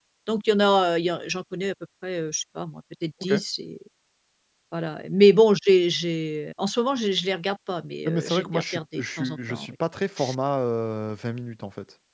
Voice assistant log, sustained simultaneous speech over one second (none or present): present